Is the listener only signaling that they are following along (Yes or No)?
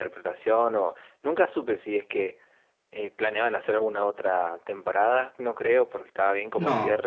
Yes